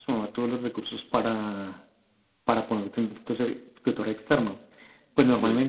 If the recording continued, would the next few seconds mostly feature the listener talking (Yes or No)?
No